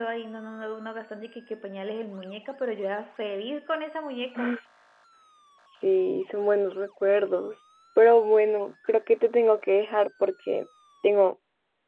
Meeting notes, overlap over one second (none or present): none